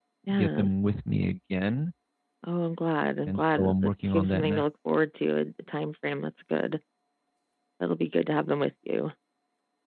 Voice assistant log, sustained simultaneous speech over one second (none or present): present